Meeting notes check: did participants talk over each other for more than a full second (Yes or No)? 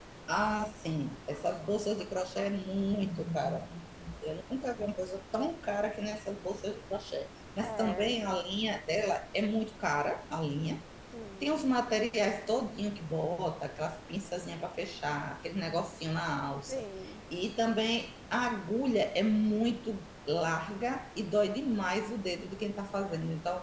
No